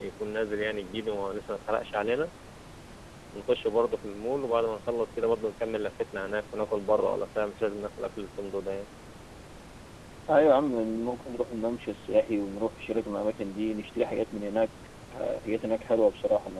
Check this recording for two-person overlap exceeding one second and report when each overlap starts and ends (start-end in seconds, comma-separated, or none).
none